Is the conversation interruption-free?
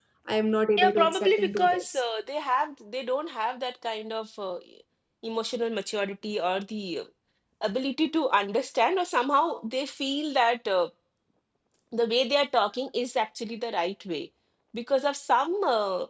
No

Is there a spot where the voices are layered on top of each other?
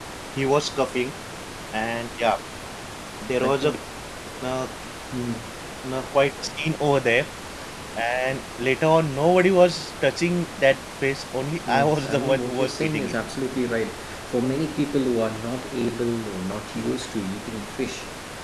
Yes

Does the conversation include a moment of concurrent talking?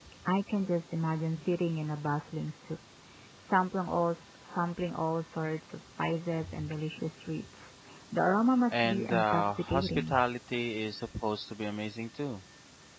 Yes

